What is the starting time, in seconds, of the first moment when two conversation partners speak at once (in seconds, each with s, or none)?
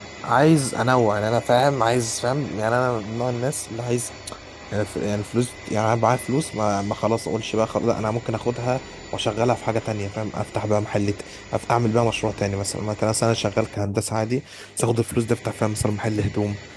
none